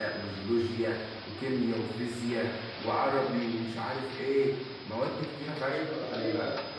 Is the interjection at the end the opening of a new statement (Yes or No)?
Yes